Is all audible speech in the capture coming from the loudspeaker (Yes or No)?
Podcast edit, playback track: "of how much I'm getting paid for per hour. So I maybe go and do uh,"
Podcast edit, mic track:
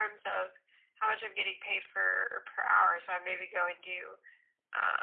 Yes